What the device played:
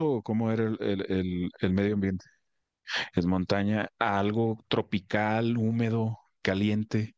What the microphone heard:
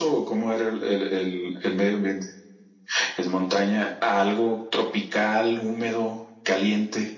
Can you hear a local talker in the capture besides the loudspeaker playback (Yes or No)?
No